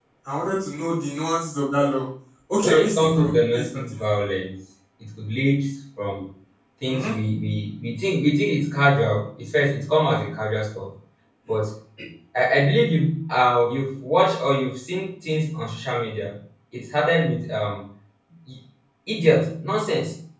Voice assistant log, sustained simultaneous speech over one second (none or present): present